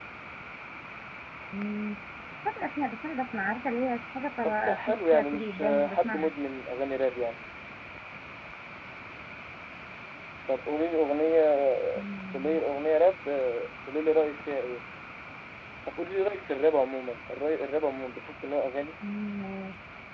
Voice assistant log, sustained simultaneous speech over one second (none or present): present